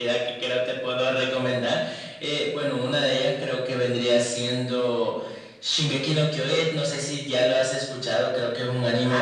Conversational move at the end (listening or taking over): taking over